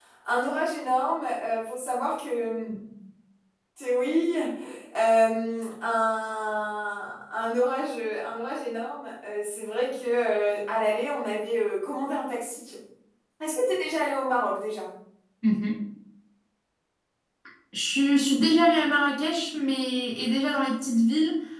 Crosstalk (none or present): none